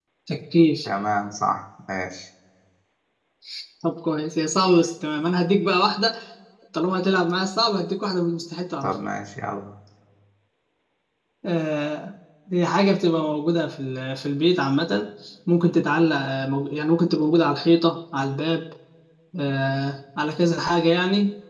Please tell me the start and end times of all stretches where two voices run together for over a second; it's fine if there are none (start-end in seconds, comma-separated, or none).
none